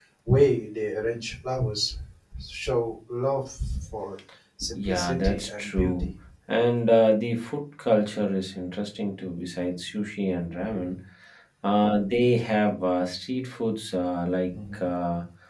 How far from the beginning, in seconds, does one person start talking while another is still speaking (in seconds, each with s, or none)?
4.8 s